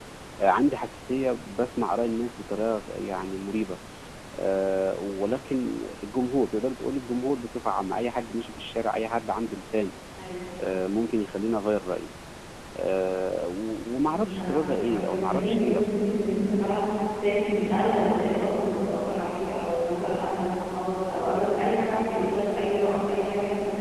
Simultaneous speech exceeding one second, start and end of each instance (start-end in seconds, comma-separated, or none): 14.1-15.9